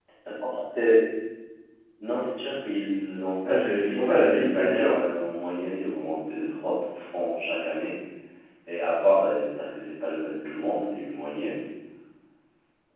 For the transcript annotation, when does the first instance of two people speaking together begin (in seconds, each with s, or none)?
3.4 s